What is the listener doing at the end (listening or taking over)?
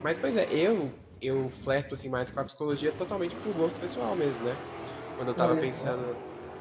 listening